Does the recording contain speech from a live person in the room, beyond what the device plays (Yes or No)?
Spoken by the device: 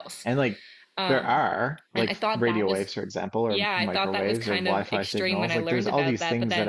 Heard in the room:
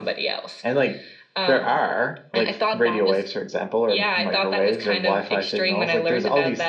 No